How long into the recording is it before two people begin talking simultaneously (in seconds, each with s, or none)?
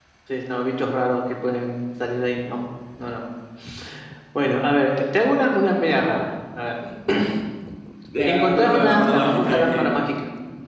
8.3 s